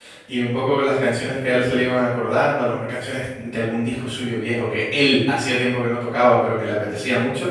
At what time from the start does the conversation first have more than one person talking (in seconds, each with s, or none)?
none